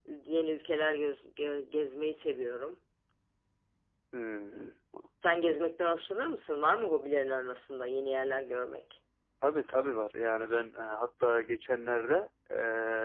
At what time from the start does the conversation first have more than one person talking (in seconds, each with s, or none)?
none